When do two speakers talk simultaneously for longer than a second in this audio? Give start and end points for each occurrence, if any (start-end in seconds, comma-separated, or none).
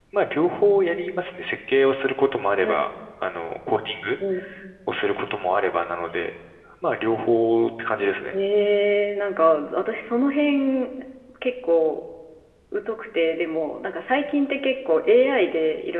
none